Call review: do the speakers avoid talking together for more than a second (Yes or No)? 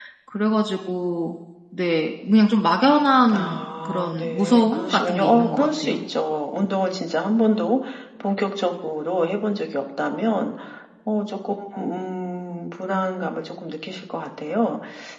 No